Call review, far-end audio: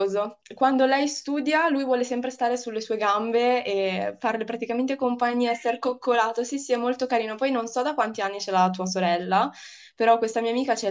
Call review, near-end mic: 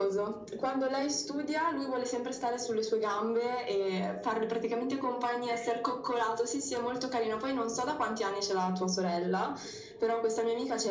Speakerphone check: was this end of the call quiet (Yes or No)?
Yes